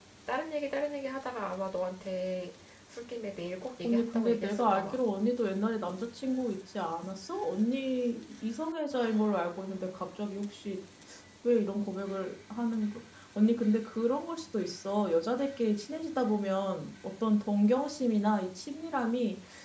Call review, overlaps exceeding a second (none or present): present